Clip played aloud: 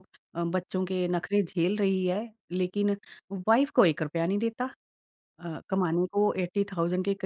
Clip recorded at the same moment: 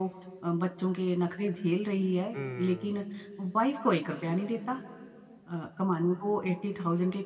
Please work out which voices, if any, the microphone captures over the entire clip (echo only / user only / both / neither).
both